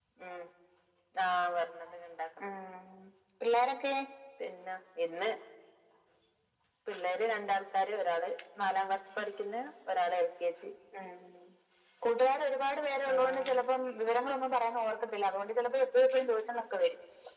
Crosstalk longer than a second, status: none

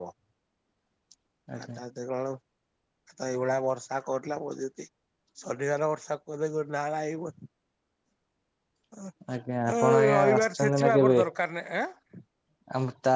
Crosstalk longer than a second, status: present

